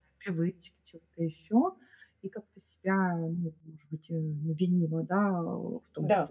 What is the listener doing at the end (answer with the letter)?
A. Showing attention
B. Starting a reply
A